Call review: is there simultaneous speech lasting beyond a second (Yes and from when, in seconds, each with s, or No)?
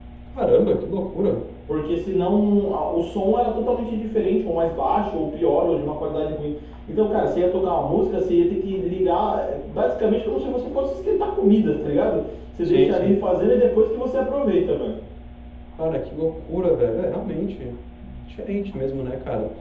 No